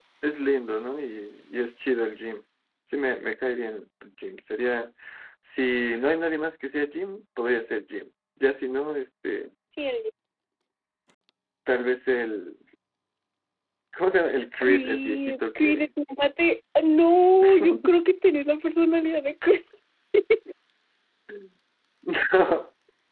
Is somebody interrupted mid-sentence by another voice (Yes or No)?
Yes